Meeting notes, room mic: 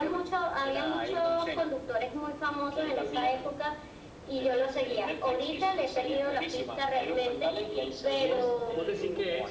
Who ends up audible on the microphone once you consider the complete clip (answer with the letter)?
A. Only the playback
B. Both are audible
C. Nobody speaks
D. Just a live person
B